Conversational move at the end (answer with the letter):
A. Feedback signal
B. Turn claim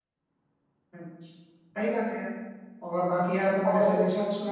A